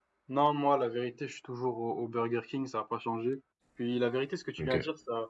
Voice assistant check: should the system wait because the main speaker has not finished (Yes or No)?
Yes